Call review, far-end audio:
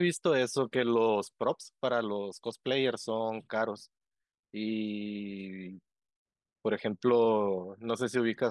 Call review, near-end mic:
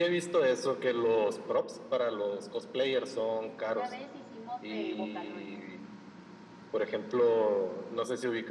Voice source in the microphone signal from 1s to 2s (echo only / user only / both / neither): echo only